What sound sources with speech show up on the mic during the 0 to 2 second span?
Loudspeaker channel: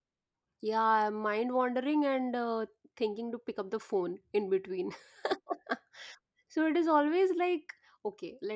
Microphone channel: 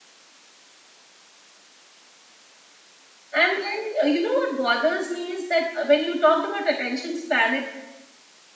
neither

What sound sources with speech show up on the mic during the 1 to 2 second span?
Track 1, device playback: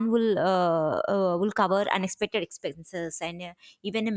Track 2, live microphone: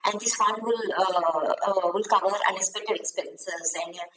echo only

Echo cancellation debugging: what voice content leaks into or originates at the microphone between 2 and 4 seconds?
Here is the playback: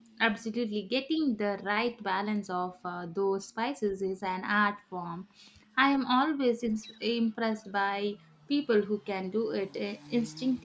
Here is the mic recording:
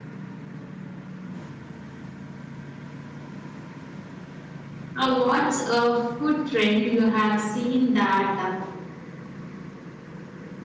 neither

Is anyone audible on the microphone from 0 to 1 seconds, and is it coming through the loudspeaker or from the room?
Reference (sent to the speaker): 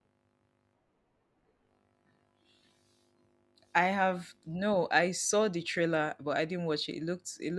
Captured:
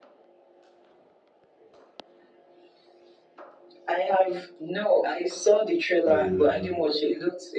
neither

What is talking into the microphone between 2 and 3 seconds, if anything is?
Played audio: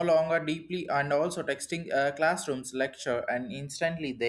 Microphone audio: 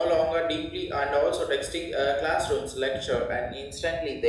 echo only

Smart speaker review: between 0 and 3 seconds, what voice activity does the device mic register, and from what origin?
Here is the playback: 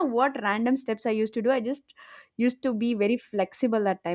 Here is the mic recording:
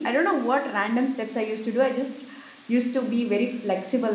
echo only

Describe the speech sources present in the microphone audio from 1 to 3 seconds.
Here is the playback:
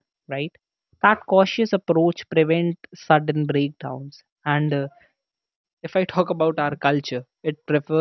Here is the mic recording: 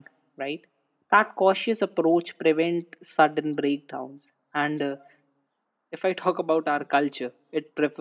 echo only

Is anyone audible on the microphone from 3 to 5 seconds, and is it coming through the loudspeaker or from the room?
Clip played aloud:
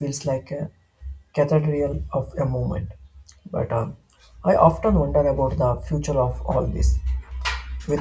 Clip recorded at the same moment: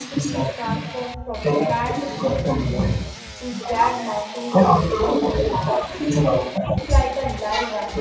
both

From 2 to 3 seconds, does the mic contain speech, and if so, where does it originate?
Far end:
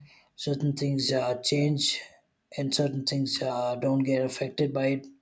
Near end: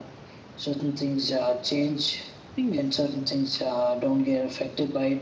both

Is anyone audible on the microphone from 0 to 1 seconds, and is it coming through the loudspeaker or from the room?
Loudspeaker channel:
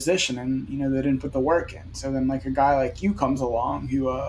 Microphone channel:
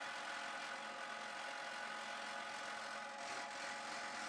neither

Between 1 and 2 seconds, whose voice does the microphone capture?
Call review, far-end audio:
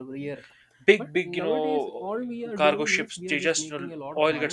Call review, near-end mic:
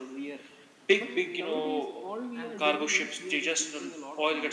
both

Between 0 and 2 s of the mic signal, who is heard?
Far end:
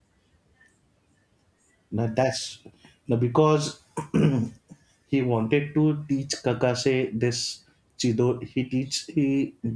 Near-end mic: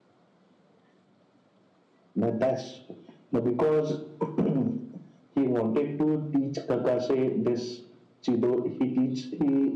neither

